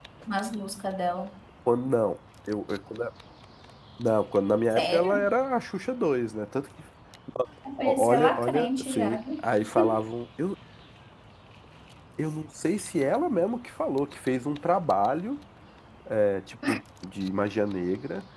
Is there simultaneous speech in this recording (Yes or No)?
Yes